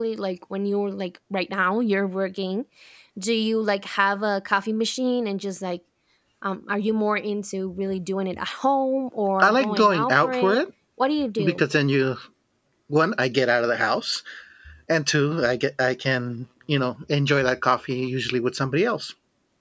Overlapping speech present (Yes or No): Yes